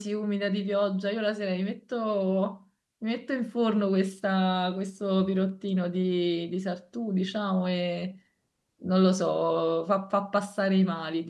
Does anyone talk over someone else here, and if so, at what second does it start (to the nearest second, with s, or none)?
none